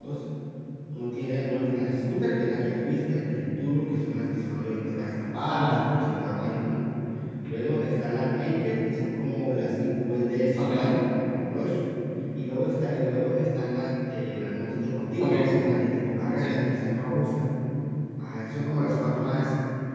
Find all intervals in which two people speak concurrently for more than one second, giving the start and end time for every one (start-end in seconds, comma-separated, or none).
none